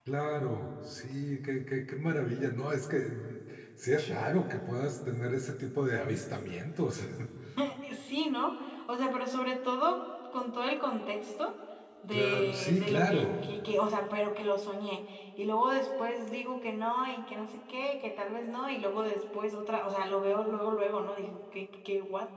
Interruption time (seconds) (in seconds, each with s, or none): 12.1 s